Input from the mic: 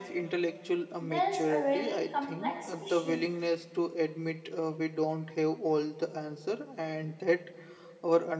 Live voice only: There's a really complex issue.

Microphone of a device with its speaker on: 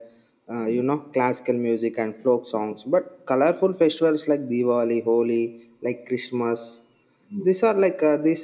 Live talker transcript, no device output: none

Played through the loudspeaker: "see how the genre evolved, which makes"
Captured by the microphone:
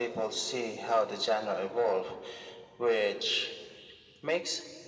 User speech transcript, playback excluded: none

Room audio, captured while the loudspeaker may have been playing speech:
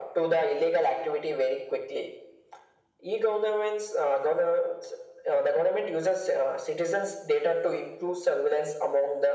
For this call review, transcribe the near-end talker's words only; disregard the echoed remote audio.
none

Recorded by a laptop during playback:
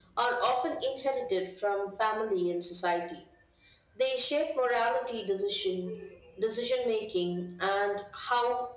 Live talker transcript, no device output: none

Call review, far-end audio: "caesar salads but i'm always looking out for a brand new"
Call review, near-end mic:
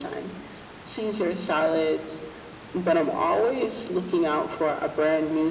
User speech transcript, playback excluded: none

